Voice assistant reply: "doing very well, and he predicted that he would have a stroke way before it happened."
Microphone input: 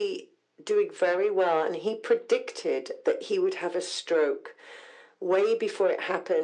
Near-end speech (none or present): none